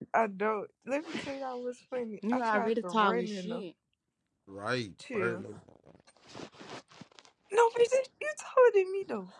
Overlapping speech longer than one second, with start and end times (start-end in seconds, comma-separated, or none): 2.3-3.6